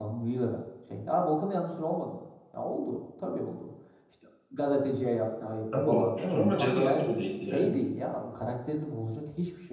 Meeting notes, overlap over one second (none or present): present